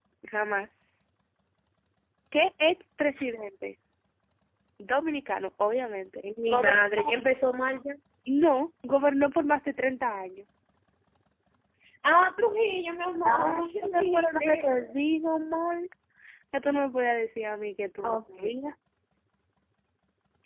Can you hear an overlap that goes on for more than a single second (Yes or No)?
Yes